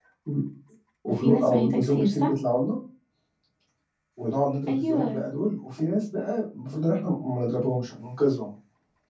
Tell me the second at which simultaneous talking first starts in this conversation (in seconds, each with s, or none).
1.1 s